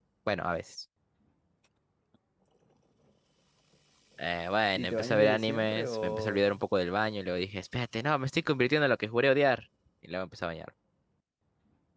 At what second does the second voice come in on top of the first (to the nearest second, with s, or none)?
5 s